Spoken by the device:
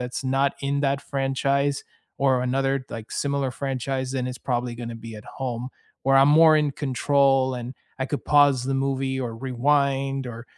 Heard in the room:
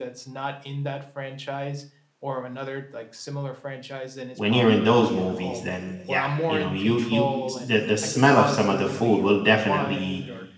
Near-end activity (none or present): present